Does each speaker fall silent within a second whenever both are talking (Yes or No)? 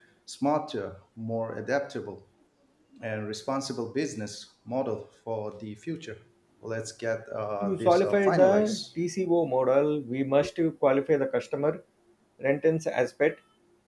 No